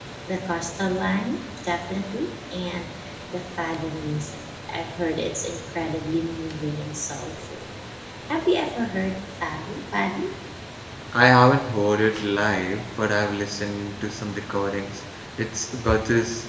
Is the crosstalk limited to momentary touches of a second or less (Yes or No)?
Yes